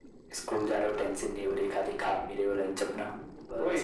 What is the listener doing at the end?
taking over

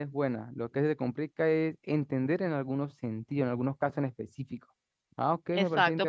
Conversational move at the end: taking over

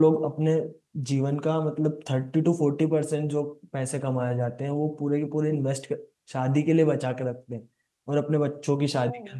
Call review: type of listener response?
listening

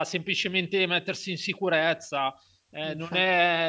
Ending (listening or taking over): listening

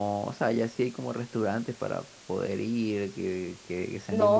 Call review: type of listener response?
taking over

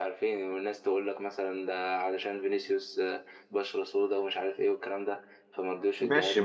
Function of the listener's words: taking over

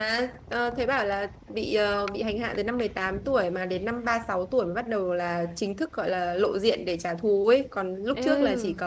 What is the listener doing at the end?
listening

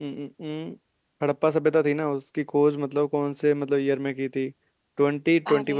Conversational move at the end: listening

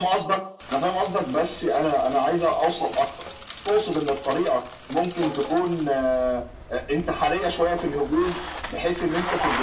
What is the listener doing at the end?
listening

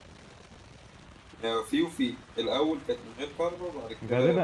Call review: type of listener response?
taking over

